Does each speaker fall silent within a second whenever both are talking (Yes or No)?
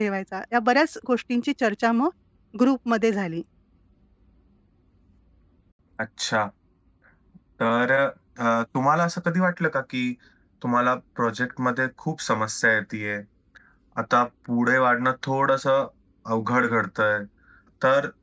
Yes